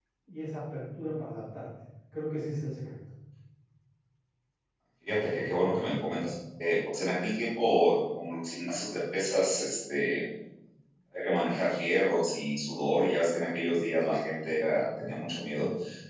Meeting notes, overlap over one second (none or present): none